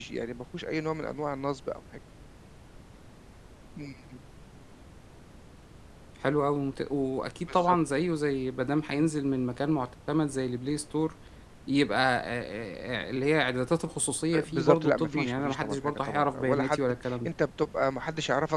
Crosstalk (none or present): present